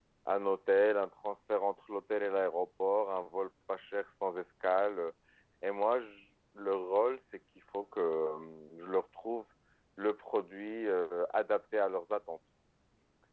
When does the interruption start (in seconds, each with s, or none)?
none